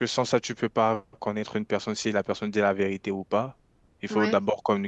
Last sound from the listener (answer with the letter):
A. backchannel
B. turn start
A